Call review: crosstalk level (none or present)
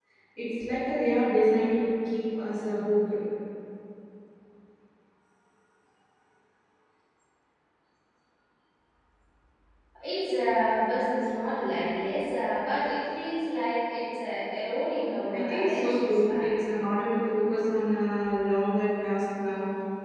present